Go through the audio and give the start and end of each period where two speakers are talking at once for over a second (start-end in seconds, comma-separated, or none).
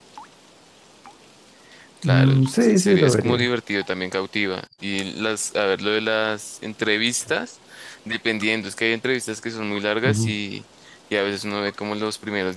2.0-3.5